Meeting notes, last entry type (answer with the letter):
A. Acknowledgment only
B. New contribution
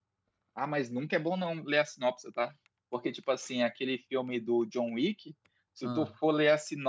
A